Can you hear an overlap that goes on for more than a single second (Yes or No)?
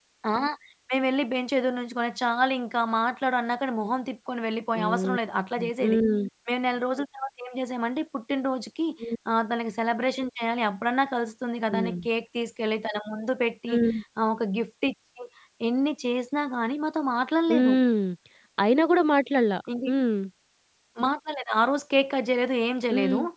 No